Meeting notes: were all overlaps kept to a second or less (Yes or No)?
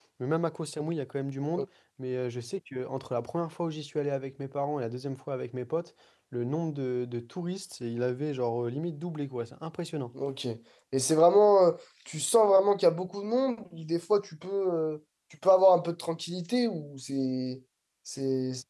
Yes